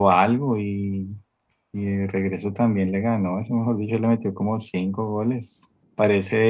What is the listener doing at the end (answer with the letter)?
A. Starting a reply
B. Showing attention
B